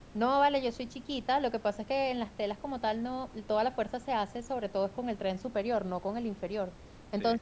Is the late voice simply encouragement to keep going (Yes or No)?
Yes